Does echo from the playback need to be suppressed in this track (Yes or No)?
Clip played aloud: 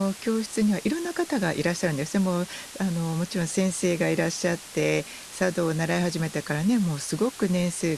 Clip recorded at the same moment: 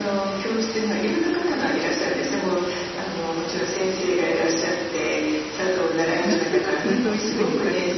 Yes